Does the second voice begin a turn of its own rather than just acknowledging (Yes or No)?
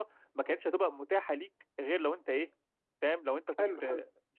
Yes